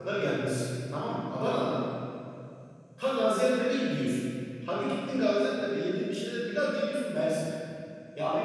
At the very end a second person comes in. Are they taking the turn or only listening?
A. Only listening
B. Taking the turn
B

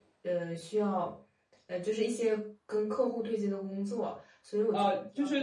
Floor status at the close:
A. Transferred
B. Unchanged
A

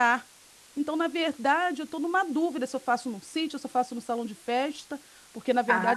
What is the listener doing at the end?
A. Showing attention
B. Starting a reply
A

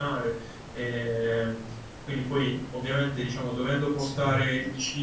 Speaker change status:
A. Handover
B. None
B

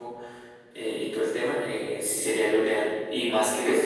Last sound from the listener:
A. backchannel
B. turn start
A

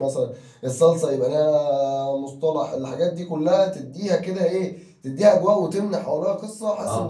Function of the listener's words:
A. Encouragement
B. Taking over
B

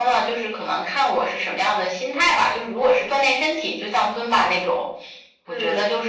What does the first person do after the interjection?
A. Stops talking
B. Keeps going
B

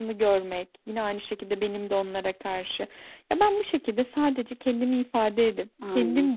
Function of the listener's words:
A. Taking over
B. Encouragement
B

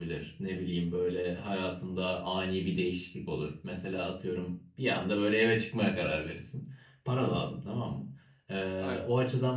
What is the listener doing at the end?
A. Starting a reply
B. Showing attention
B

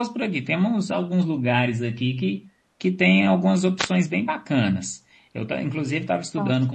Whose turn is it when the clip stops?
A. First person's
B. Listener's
A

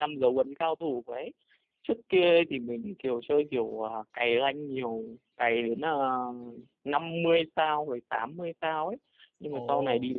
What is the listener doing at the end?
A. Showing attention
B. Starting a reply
A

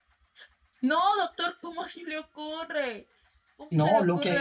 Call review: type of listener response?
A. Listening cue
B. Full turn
B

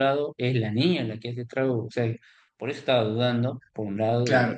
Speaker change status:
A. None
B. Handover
B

